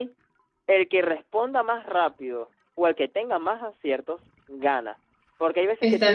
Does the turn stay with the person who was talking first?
Yes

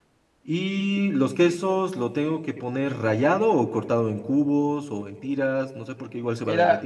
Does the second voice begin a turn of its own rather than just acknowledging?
Yes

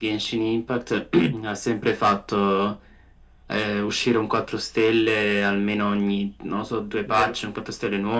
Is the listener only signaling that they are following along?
Yes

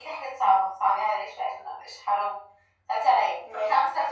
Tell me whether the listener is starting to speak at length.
No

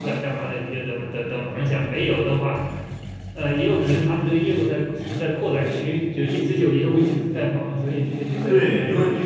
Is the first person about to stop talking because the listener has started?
Yes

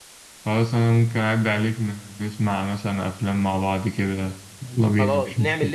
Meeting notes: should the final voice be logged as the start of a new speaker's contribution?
Yes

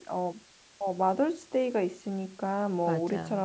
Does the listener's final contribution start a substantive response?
No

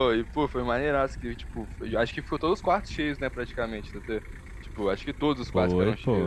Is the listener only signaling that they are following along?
No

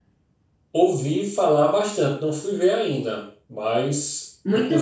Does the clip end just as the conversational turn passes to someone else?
Yes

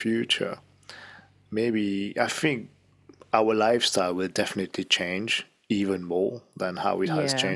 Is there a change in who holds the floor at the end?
No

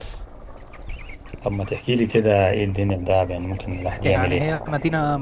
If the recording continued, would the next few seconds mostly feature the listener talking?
Yes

